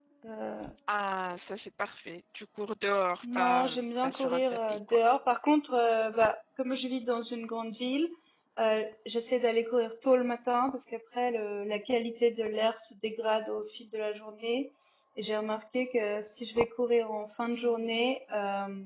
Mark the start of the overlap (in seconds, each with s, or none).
3.2 s